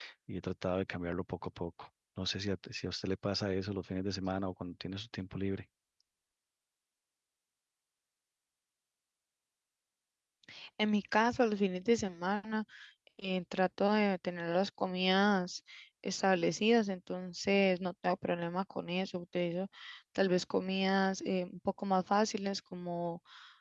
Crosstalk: none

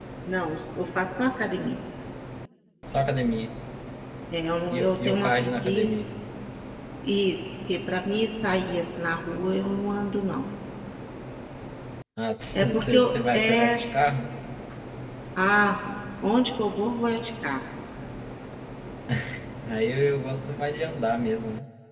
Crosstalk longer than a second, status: present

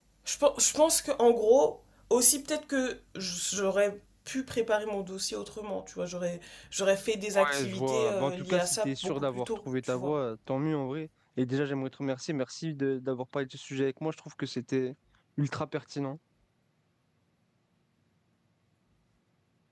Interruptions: present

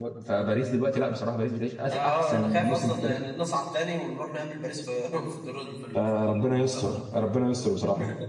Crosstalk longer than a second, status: present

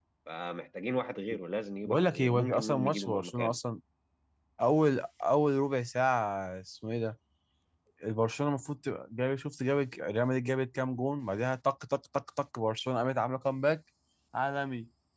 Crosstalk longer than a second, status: present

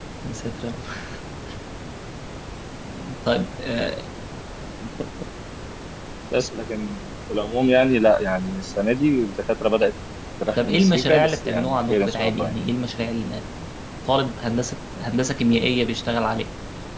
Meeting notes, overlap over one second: present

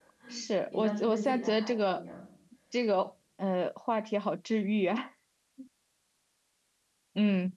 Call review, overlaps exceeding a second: present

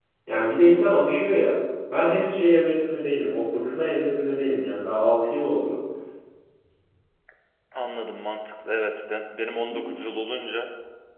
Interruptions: none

